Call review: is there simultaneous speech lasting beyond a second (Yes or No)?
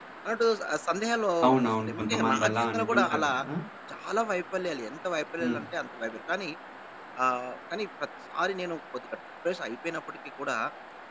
Yes